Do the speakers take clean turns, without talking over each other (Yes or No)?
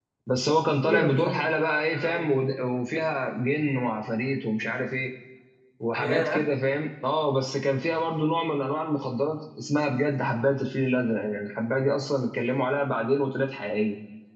No